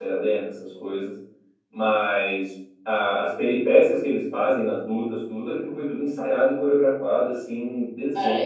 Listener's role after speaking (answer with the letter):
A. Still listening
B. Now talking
B